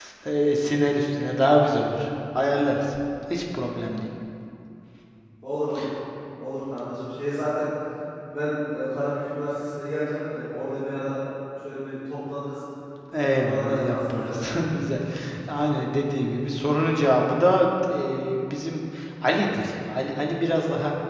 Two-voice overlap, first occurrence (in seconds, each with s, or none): 13.2 s